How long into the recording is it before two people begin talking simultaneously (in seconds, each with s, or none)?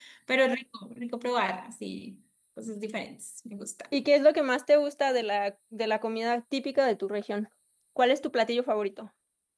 none